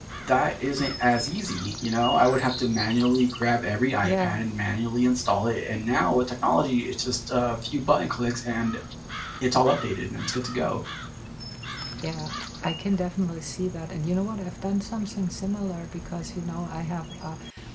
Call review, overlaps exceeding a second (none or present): none